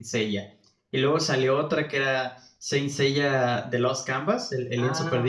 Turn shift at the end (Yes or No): Yes